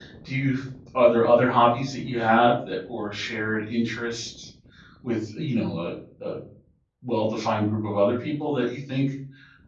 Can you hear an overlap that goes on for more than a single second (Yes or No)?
No